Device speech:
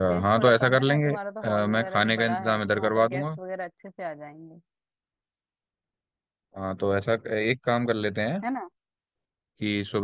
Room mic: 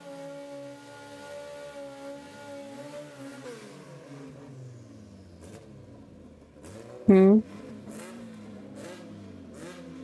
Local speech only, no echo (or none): हम्म